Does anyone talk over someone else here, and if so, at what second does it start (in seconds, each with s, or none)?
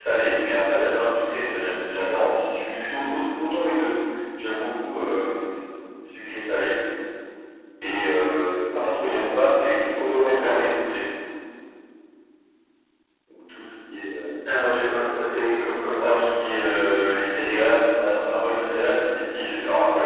9.0 s